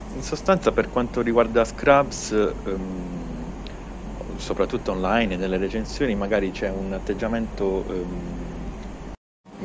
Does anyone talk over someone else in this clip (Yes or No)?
No